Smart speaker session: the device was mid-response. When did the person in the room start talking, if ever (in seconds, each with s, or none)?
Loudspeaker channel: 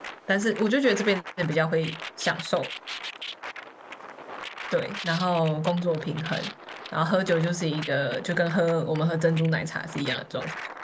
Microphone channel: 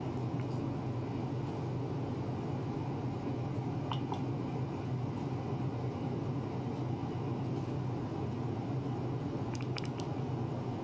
none